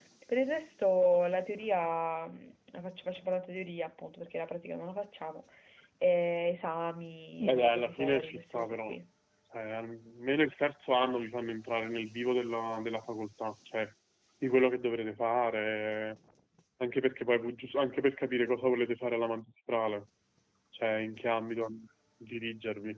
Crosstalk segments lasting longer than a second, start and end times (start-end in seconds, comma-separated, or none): 7.4-9.0